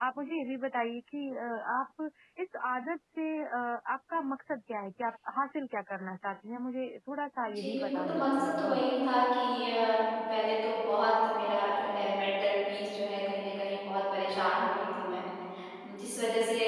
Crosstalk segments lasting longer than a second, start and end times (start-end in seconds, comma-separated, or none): 7.5-8.8